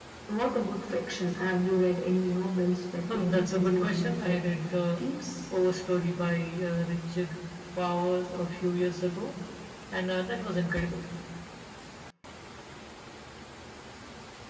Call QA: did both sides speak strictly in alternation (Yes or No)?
No